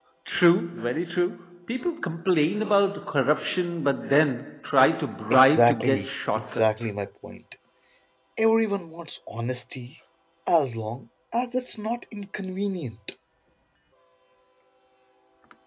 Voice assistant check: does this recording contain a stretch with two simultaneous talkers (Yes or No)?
Yes